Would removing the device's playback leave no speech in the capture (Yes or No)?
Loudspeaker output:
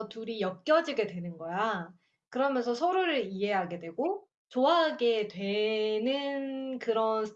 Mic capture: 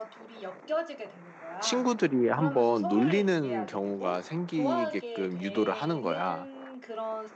No